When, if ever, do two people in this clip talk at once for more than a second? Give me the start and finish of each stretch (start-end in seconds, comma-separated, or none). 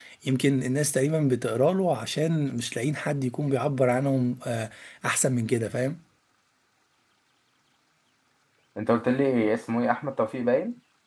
none